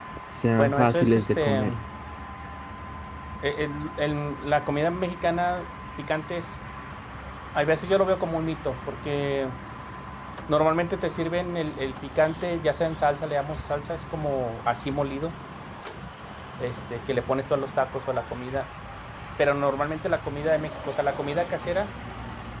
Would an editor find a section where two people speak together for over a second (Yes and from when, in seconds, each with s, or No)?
Yes, from 0.6 s